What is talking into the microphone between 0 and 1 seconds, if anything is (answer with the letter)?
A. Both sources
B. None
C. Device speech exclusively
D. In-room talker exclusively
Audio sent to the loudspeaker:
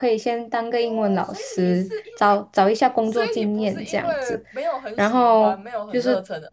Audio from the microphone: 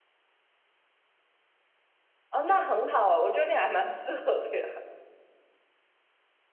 B